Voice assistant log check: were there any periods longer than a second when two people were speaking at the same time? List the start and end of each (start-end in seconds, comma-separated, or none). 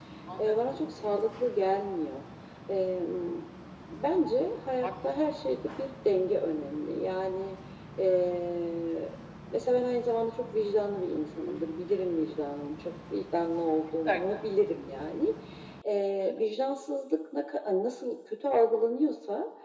none